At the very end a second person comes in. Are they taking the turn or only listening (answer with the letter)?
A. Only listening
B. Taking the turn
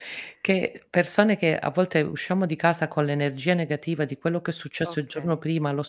A